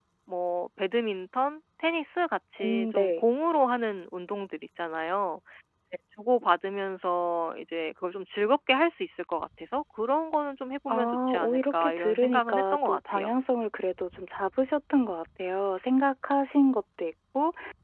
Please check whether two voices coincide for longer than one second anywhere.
Yes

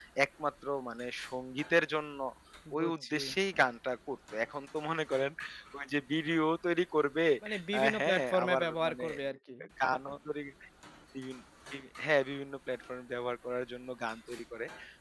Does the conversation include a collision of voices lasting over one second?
Yes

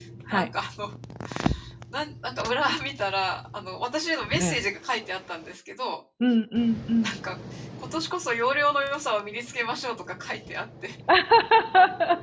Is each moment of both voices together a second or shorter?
Yes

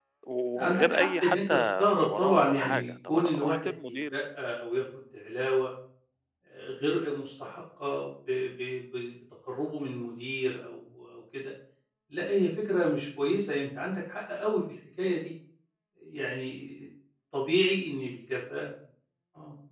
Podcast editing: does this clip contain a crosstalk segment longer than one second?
Yes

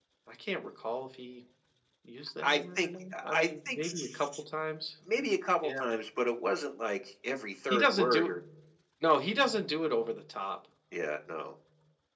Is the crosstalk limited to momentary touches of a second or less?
No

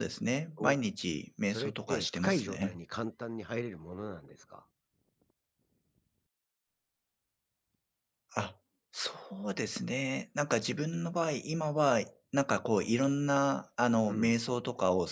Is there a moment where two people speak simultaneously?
Yes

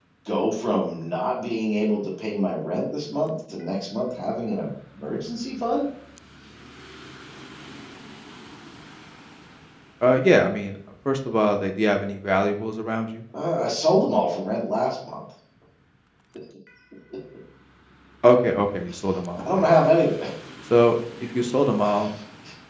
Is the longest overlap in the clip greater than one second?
No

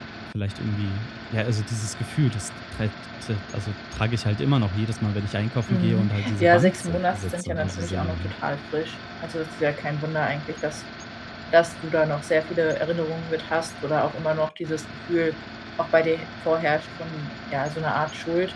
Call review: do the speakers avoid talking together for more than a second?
No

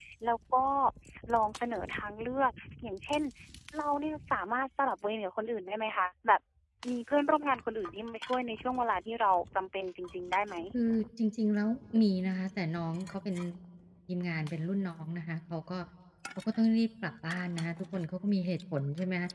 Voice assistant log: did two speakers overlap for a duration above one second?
No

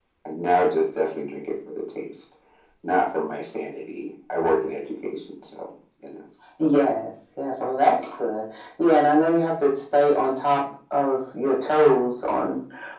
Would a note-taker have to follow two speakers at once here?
No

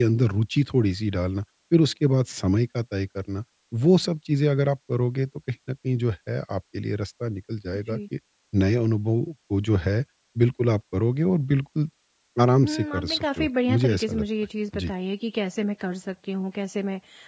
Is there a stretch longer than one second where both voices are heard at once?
Yes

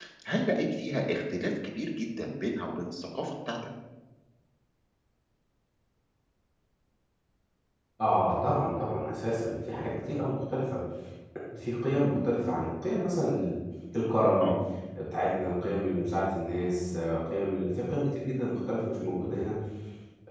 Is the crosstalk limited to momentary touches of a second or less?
Yes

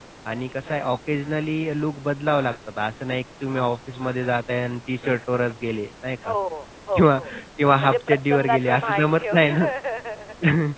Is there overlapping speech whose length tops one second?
Yes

